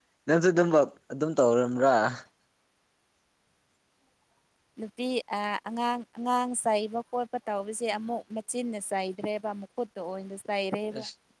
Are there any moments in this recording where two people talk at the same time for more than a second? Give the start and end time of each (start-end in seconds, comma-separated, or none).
none